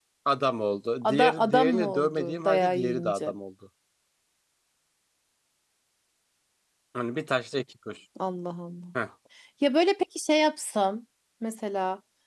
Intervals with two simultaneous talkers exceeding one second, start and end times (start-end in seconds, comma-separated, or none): 1.0-3.3